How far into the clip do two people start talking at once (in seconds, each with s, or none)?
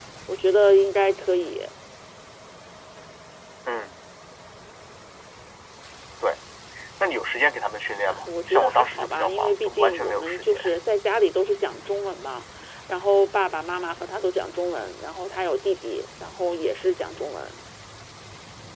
8.1 s